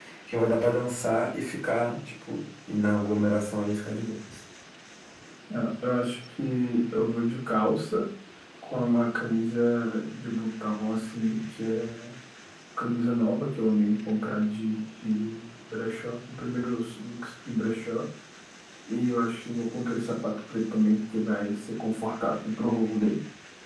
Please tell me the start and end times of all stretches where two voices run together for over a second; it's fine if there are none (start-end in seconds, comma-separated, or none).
none